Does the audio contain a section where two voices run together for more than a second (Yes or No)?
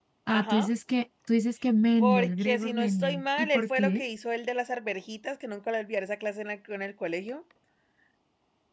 Yes